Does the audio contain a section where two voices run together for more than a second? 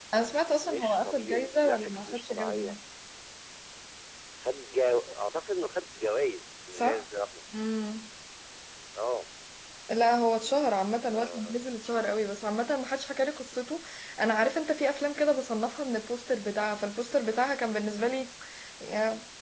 Yes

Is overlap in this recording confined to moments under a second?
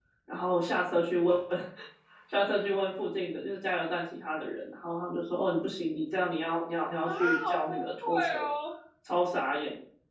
No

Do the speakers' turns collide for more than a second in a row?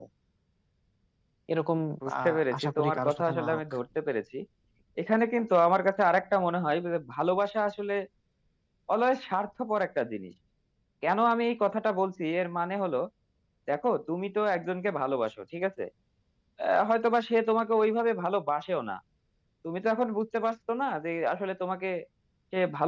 Yes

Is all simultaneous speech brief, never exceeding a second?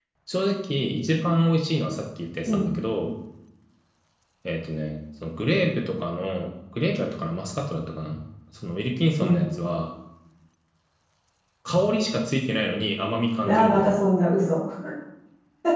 Yes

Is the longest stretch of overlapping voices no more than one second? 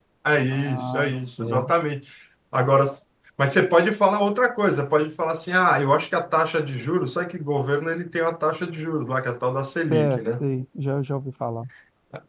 No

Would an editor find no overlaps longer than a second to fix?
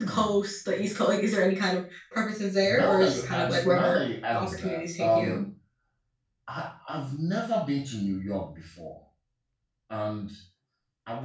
No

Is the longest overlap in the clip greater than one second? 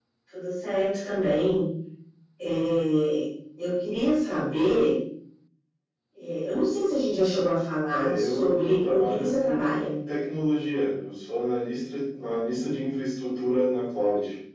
Yes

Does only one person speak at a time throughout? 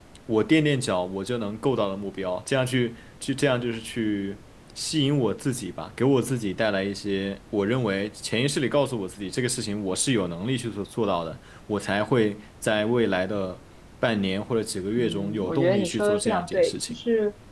No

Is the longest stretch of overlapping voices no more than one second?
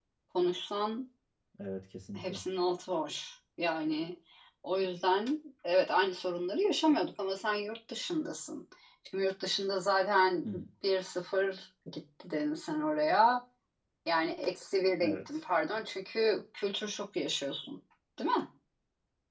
Yes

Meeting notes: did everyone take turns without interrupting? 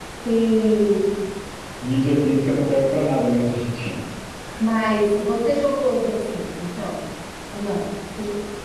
Yes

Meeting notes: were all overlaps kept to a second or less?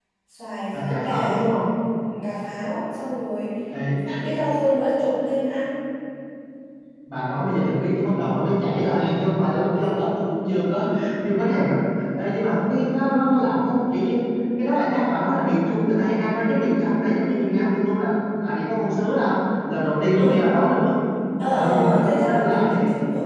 No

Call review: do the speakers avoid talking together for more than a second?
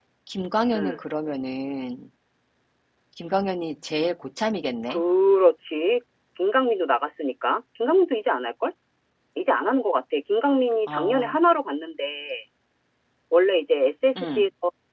Yes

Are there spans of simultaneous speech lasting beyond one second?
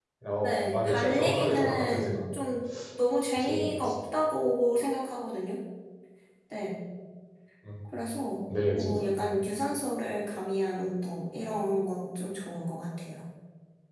Yes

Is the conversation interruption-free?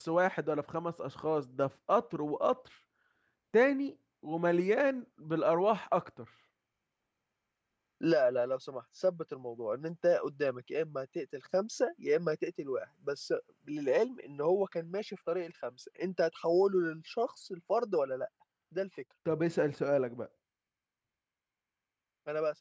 Yes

